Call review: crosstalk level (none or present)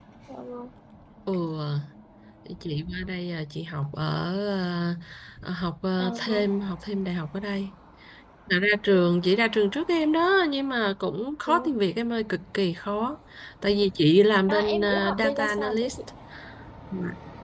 present